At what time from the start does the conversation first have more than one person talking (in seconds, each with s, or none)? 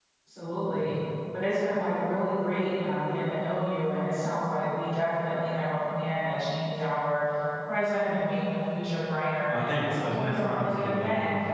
9.5 s